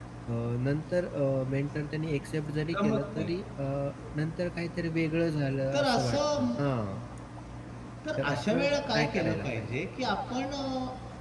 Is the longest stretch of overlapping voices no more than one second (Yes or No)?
No